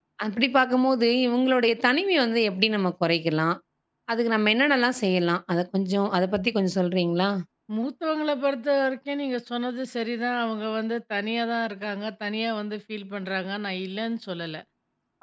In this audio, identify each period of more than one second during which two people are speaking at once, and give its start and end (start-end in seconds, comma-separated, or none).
none